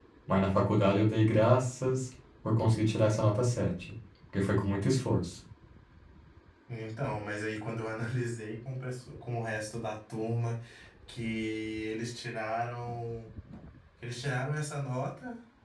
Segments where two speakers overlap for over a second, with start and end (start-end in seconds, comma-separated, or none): none